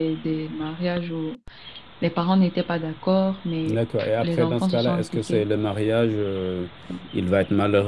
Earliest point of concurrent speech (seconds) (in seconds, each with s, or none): 3.6 s